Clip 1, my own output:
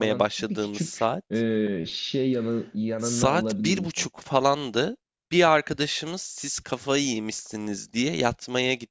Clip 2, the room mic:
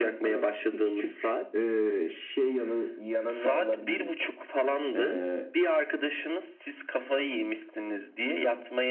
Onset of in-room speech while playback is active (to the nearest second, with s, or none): 5 s